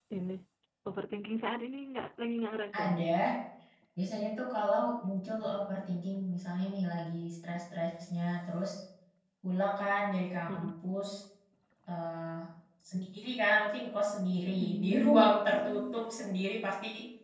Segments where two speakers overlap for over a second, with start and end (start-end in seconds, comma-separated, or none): 14.6-16.0